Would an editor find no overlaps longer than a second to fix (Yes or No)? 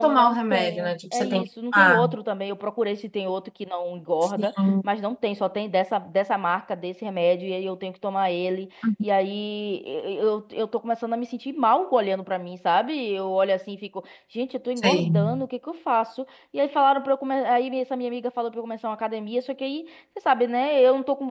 No